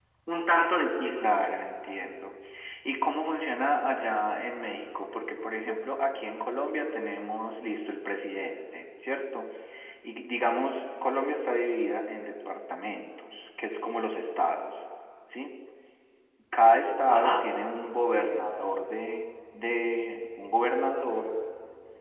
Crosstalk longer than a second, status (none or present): none